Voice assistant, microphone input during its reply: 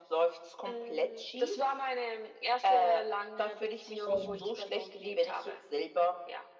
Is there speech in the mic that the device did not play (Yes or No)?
Yes